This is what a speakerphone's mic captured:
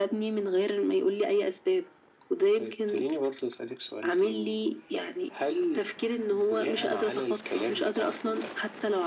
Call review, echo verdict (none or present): present